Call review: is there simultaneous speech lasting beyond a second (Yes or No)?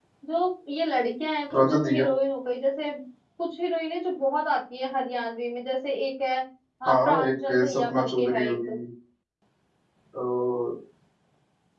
Yes